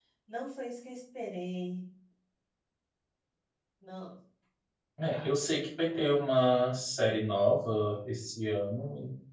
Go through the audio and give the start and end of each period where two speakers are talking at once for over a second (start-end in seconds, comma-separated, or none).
none